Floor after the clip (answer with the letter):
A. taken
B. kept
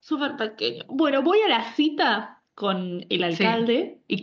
B